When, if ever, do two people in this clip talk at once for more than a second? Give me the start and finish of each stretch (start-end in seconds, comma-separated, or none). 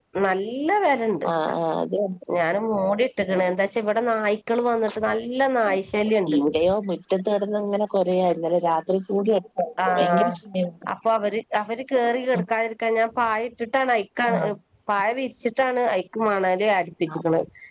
none